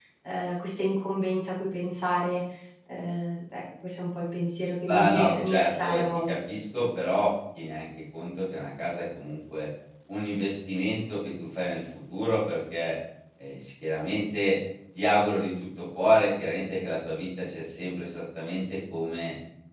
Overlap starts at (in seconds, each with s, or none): 4.8 s